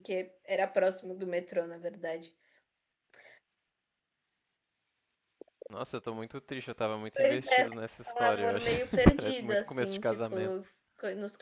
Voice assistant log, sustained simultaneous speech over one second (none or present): present